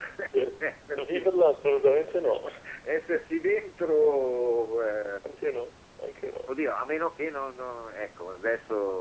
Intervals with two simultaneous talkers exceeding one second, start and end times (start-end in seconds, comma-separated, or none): none